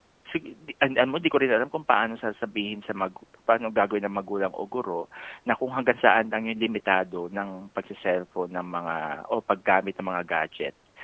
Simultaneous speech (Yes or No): No